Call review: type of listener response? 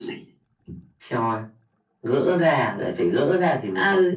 taking over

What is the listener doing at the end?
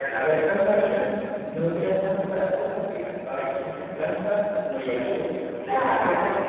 taking over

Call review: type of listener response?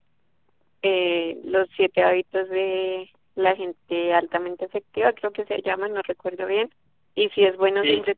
listening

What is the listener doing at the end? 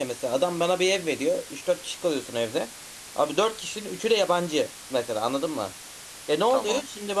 listening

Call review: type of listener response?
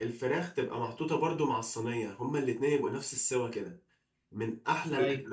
listening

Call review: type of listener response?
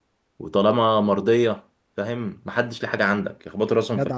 taking over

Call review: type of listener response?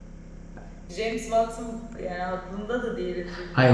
taking over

